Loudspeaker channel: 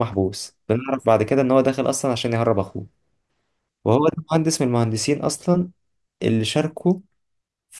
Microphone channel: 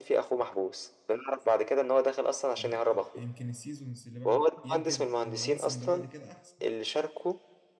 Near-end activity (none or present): present